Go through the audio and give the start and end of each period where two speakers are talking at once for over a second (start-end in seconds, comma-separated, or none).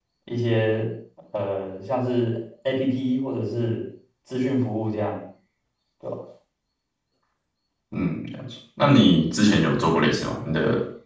none